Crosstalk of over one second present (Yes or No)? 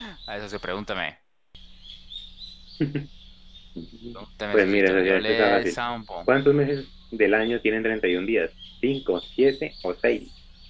Yes